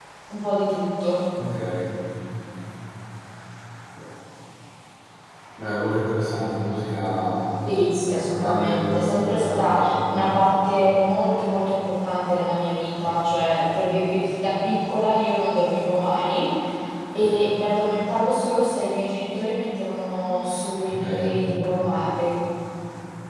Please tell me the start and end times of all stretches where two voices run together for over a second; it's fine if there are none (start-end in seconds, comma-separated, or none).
8.3-10.5